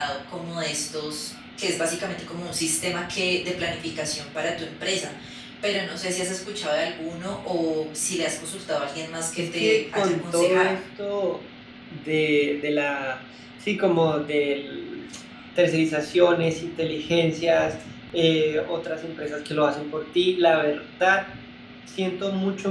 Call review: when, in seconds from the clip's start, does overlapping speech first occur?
9.4 s

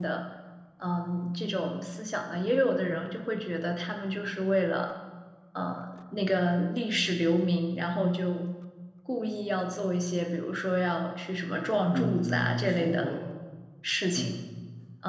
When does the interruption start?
11.9 s

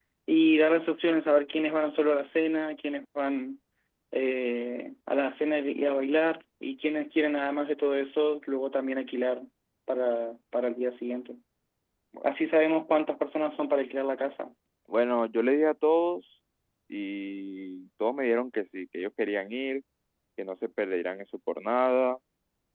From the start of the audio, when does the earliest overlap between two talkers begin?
none

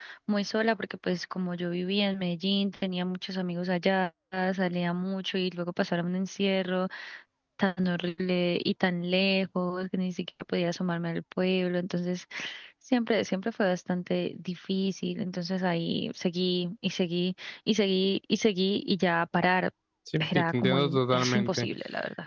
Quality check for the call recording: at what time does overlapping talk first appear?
20.4 s

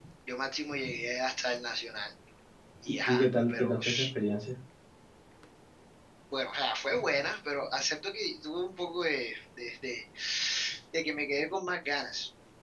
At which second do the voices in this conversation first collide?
2.9 s

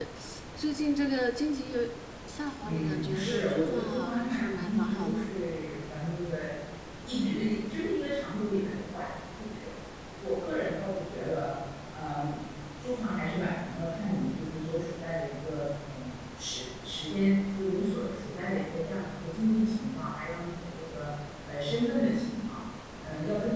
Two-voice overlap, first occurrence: 2.6 s

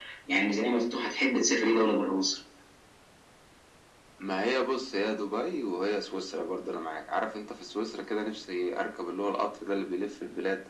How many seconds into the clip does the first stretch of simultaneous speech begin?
none

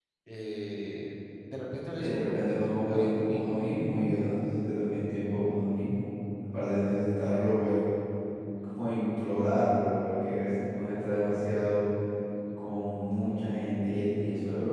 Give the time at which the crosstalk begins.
2.0 s

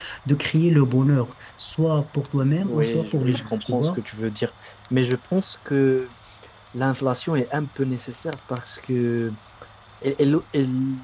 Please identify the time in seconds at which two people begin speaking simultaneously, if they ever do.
2.4 s

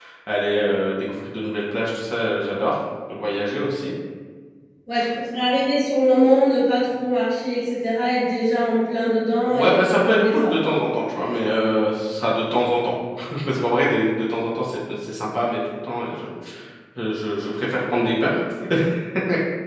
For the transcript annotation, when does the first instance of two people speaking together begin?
9.4 s

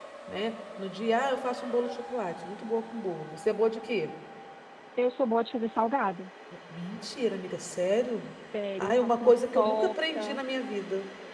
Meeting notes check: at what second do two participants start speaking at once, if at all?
8.8 s

